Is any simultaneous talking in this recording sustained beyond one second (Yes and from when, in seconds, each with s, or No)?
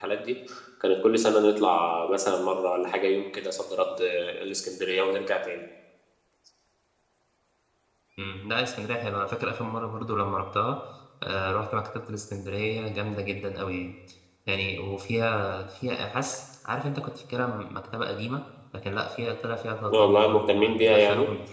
Yes, from 19.9 s